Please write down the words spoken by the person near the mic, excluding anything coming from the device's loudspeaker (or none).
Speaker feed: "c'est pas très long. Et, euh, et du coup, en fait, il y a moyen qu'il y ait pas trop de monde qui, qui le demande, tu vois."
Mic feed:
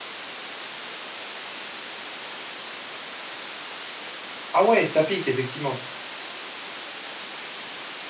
Ah ouais, ça pique effectivement.